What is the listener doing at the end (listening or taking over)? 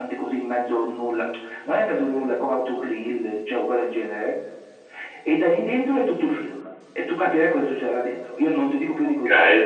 taking over